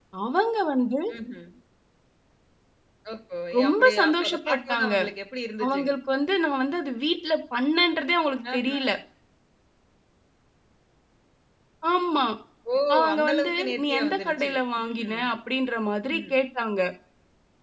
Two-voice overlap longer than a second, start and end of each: 3.6-4.9, 13.1-15.2

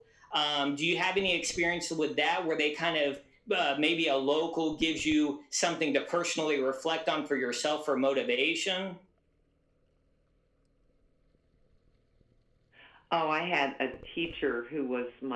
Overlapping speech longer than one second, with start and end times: none

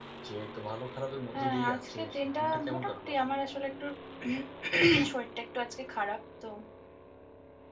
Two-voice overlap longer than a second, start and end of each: 1.3-3.2

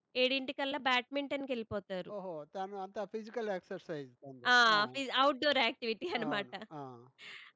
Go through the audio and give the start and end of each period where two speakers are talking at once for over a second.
none

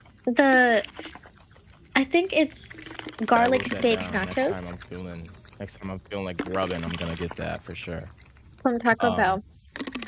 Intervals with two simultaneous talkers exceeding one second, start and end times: 3.4-4.6

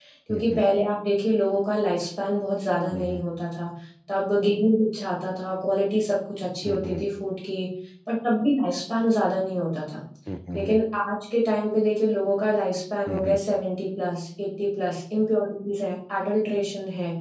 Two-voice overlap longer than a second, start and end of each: none

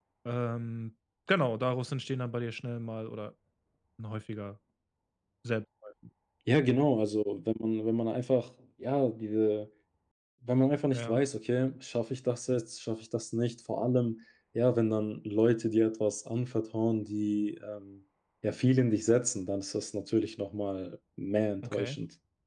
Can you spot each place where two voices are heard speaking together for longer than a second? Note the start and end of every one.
none

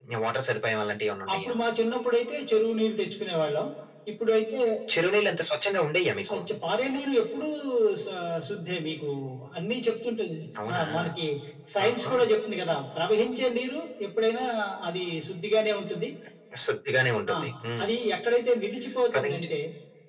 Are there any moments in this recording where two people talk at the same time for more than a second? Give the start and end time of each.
none

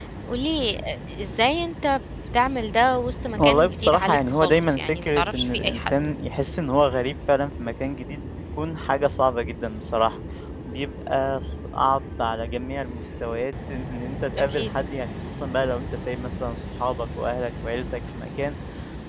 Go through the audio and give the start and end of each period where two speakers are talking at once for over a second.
3.4-5.9

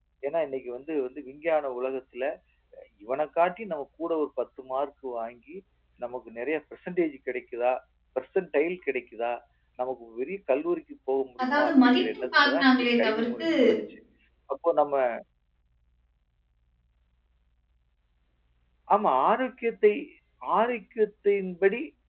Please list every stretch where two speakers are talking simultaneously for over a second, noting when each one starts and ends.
11.4-13.5

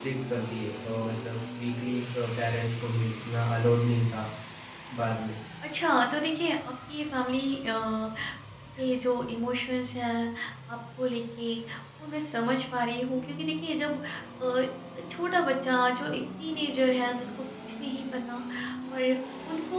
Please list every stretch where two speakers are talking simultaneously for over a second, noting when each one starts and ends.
none

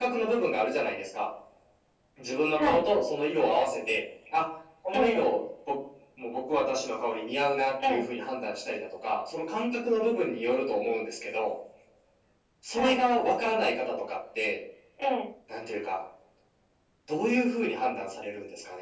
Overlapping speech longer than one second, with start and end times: none

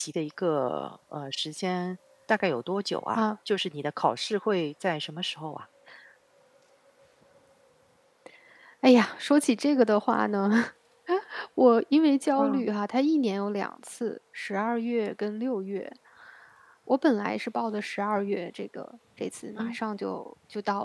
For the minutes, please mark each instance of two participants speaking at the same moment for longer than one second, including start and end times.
none

